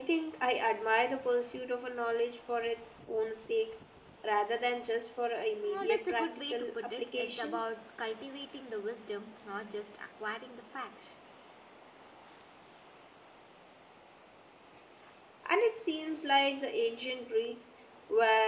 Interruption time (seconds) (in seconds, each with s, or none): 5.6 s